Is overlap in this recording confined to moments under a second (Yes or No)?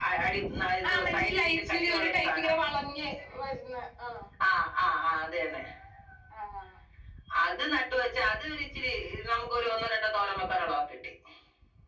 No